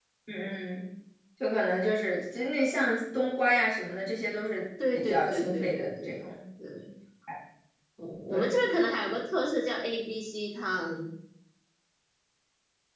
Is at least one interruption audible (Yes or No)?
Yes